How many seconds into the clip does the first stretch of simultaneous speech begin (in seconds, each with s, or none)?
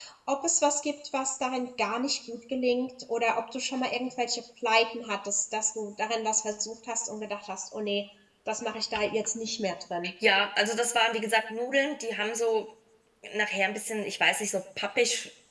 none